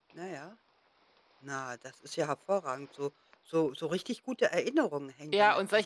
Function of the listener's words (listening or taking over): taking over